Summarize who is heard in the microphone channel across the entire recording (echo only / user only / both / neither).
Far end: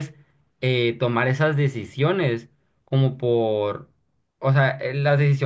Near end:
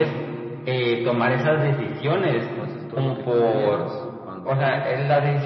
both